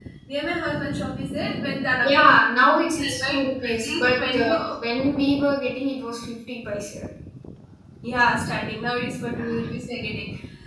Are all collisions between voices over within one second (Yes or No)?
No